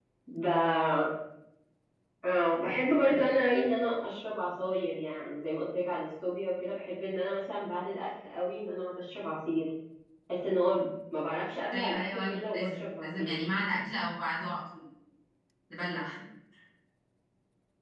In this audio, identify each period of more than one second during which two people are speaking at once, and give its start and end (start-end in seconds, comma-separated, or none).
11.7-13.3